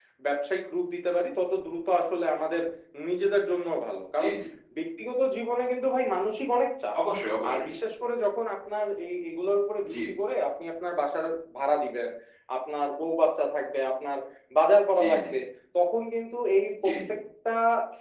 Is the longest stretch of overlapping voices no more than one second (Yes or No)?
Yes